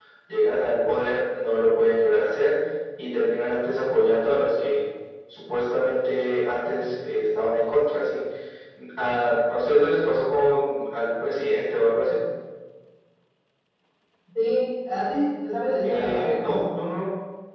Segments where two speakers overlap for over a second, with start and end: none

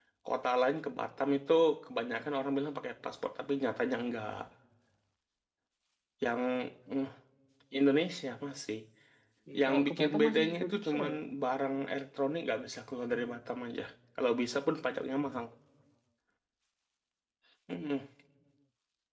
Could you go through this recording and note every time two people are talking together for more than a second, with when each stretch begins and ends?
9.6-11.2

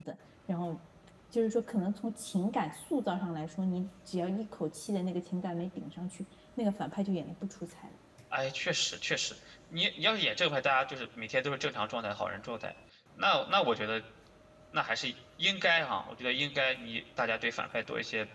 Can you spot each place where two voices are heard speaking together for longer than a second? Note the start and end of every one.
none

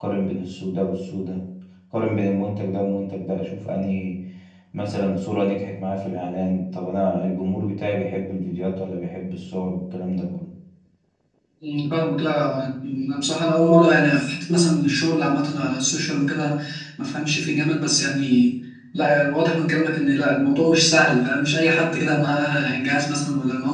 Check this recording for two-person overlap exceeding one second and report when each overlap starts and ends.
none

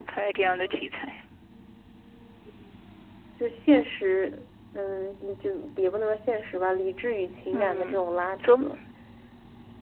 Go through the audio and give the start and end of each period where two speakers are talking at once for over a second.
none

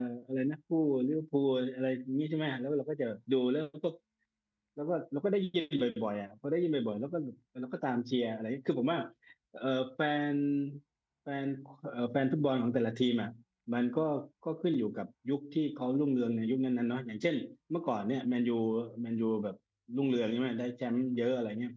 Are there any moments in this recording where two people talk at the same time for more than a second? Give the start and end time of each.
none

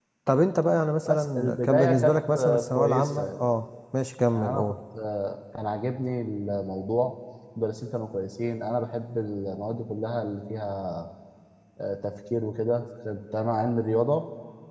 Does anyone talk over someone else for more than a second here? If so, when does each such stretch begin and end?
1.1-3.2

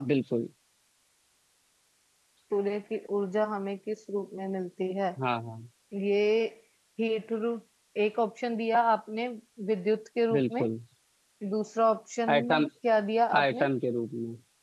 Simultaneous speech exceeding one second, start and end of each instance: none

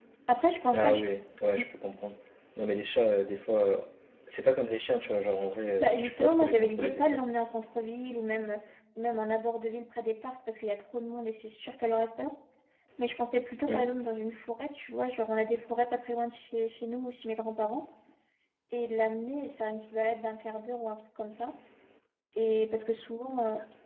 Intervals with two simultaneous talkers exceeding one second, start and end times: 5.8-7.2

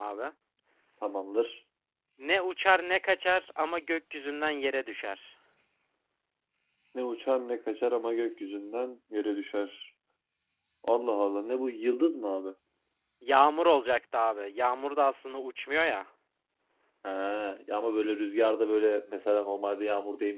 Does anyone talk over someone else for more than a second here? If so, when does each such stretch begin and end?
none

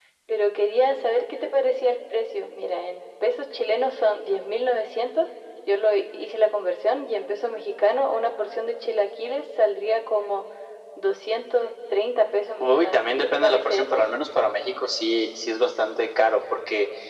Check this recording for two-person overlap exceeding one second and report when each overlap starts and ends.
12.6-14.0

